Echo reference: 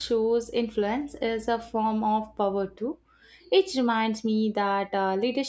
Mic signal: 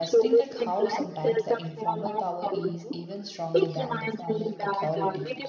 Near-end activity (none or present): present